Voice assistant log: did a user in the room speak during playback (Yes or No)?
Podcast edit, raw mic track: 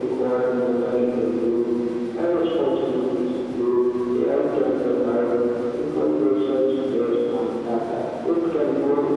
No